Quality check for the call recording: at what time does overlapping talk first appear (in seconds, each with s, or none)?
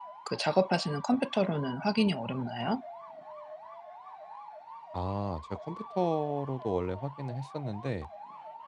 none